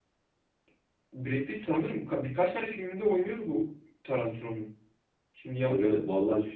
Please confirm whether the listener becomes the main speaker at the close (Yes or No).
Yes